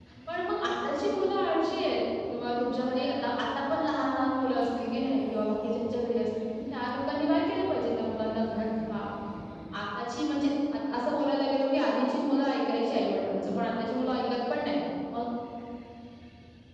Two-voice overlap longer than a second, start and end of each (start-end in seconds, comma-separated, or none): 0.7-1.9